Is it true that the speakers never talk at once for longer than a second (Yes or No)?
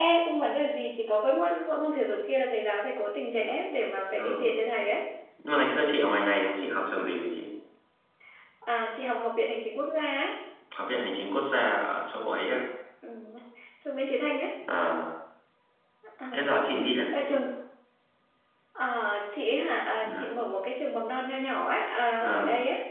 Yes